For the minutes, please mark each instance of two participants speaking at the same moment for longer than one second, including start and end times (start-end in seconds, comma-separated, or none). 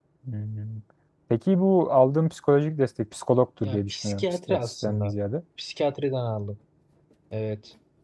3.6-5.1